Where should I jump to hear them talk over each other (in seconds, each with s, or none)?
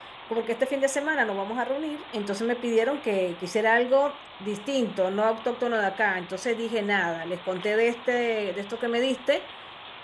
none